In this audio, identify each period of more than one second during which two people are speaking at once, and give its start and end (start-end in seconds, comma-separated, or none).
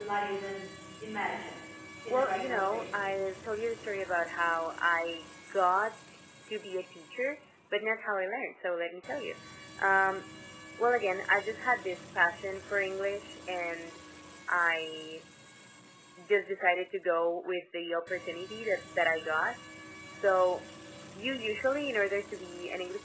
2.1-3.4